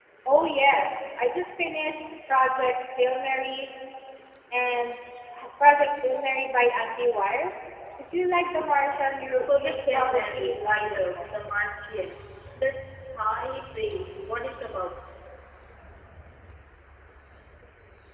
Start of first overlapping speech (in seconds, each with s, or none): 9.5 s